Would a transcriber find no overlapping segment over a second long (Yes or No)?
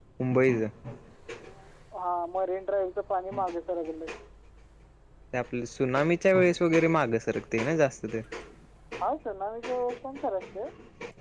Yes